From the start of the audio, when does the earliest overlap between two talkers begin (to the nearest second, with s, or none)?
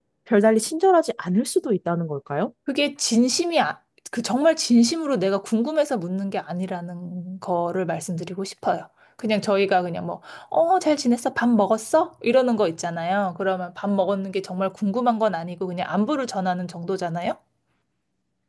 none